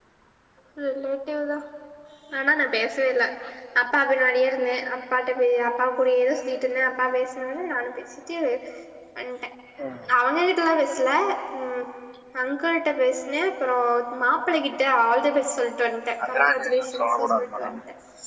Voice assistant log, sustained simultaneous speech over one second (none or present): present